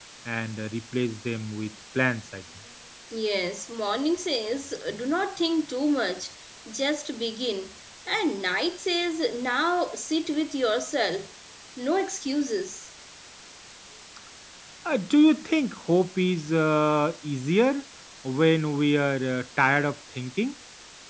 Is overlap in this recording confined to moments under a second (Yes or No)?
Yes